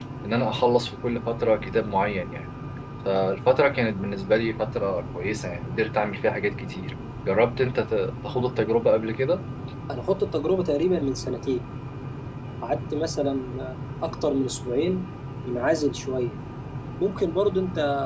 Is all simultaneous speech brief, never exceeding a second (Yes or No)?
Yes